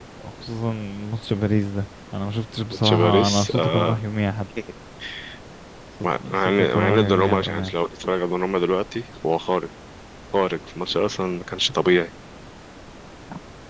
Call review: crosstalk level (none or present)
present